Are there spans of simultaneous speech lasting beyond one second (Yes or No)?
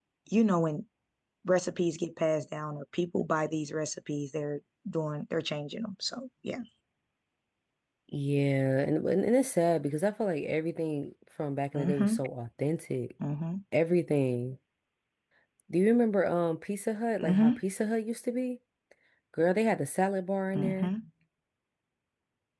No